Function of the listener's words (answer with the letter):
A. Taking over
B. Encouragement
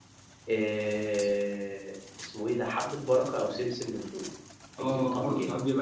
A